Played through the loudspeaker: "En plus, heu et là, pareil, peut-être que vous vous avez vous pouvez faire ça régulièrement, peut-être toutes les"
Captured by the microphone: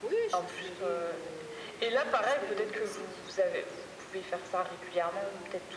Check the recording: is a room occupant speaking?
Yes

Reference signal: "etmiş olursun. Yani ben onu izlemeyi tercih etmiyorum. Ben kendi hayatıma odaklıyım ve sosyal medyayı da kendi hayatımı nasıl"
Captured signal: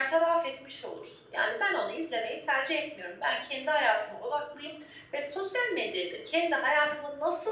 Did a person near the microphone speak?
No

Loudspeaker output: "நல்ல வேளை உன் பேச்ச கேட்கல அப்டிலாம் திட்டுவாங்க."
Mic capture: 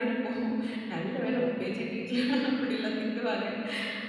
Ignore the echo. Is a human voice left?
No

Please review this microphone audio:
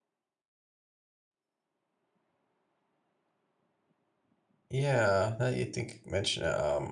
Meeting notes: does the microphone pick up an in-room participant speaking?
Yes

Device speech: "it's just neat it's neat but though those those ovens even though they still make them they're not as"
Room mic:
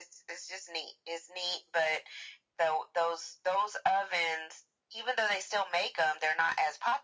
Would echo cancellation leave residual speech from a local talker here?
No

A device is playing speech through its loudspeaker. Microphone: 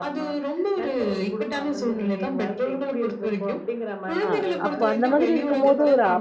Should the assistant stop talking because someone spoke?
Yes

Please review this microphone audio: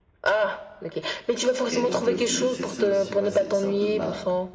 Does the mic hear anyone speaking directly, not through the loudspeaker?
Yes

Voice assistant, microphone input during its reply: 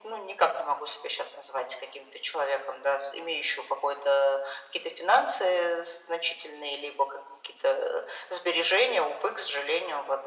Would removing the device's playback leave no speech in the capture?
Yes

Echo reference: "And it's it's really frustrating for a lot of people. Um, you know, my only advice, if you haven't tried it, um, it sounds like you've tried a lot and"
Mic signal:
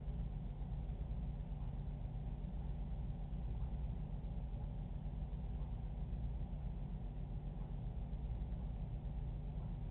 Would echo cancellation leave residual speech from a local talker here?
No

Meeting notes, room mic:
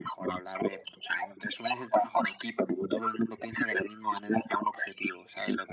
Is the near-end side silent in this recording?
Yes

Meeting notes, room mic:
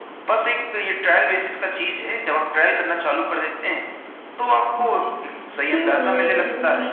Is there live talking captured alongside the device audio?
Yes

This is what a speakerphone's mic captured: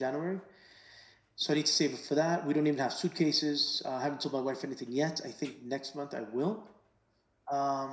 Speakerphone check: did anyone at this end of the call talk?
No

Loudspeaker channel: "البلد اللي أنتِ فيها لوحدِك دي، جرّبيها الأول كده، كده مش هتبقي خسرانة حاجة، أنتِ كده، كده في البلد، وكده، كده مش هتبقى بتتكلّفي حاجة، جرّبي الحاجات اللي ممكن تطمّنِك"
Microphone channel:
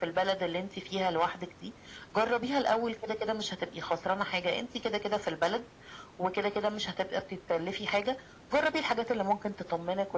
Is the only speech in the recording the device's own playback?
Yes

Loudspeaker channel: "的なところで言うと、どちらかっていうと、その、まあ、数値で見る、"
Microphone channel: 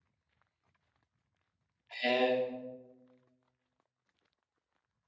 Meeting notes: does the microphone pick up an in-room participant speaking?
Yes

